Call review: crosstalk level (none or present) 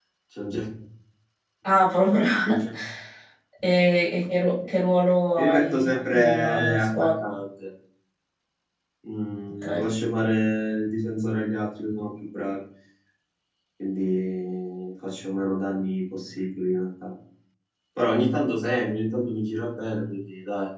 present